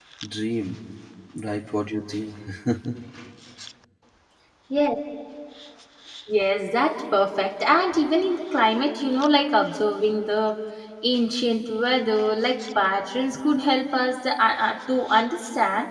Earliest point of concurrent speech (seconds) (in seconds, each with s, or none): none